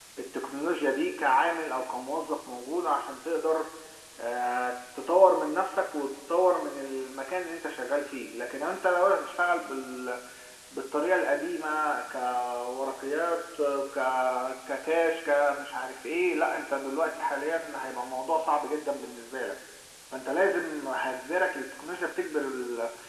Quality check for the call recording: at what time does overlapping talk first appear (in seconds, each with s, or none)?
none